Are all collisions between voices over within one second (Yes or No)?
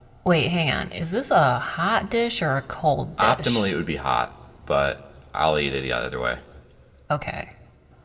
Yes